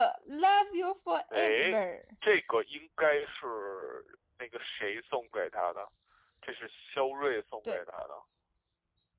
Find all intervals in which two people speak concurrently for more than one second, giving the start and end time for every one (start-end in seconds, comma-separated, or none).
none